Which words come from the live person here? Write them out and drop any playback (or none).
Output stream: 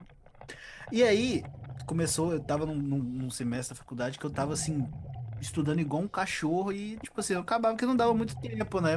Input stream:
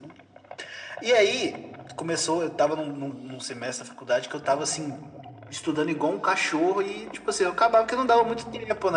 none